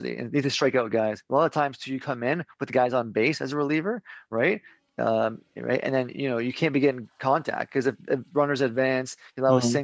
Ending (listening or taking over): listening